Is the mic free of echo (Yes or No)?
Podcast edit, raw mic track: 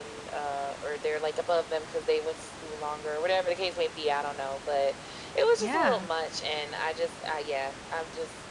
No